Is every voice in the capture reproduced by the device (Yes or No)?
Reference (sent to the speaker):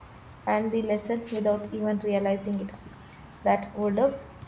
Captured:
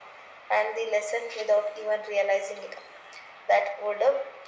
Yes